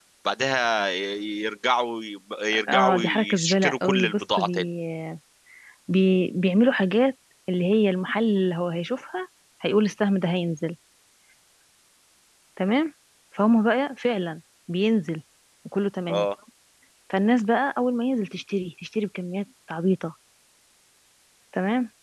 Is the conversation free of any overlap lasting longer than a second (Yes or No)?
No